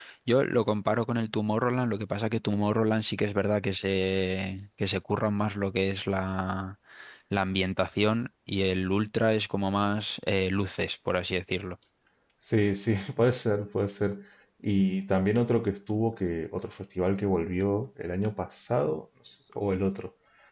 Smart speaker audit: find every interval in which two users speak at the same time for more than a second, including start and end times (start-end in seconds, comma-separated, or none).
none